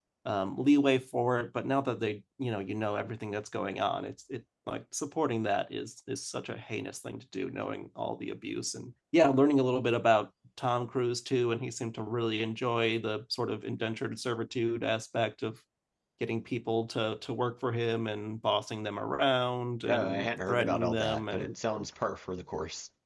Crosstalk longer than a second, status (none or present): present